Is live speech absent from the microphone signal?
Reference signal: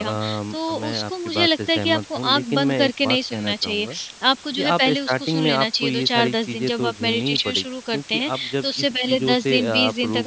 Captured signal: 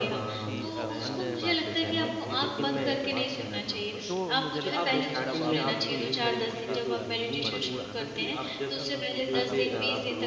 No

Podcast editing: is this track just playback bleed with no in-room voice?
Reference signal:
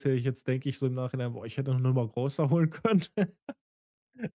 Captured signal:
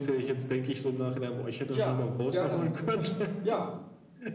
No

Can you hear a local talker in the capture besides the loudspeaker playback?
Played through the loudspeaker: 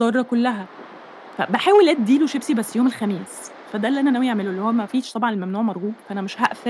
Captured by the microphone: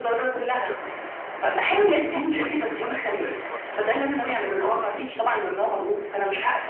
Yes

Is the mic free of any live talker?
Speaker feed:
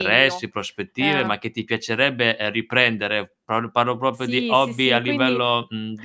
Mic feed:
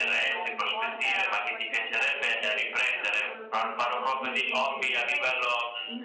No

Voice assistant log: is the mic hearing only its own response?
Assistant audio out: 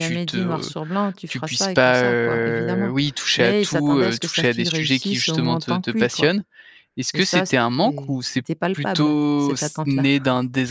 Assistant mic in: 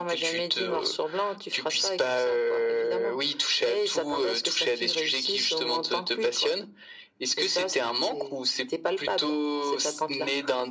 Yes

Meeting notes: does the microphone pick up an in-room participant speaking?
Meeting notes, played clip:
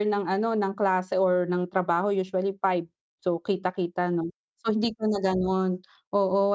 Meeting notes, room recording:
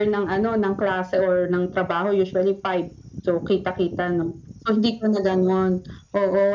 No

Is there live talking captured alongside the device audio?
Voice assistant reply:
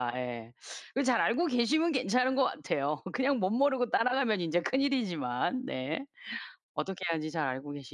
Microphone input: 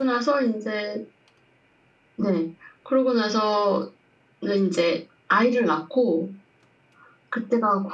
Yes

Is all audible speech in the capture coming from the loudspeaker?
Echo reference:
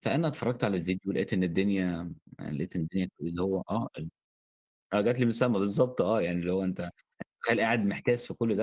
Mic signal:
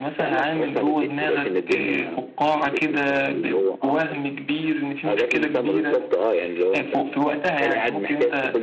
No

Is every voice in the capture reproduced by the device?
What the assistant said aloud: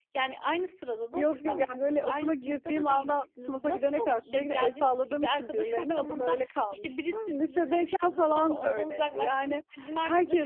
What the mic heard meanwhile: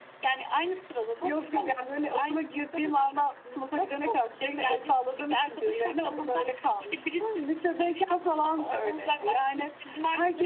Yes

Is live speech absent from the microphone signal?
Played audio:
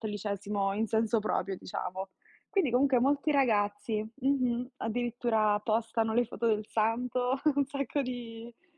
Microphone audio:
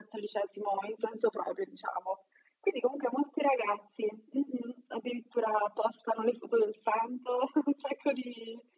Yes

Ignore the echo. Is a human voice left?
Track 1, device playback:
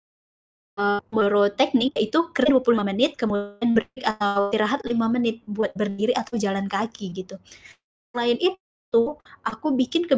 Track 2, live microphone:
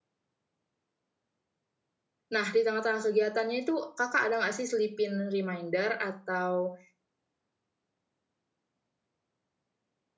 Yes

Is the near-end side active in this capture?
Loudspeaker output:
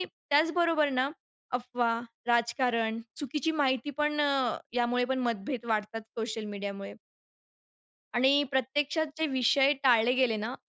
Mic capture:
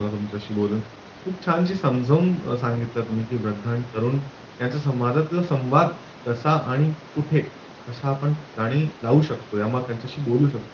Yes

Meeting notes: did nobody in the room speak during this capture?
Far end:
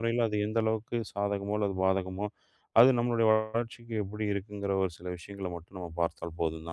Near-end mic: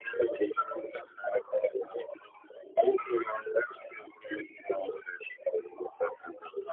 Yes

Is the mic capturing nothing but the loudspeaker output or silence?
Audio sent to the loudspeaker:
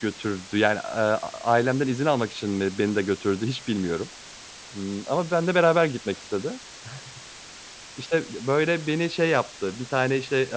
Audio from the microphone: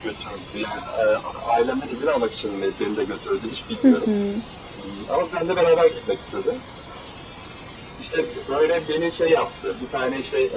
No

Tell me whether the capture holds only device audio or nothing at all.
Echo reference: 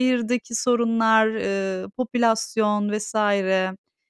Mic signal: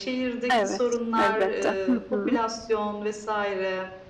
No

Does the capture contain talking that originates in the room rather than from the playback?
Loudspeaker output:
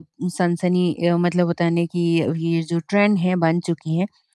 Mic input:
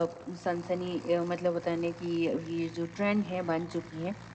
No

